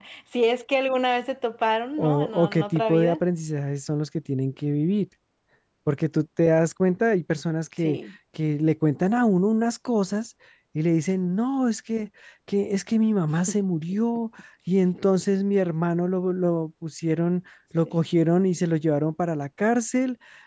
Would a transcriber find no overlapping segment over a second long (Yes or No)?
No